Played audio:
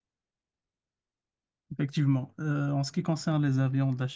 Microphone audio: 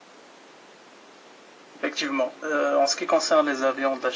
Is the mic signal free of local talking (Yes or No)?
Yes